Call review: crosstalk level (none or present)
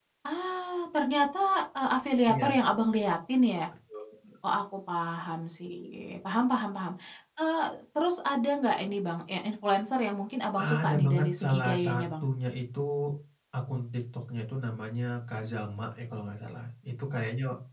present